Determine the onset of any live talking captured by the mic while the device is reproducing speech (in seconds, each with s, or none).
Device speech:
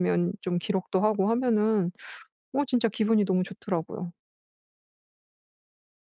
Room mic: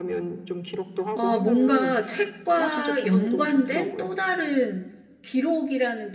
1.1 s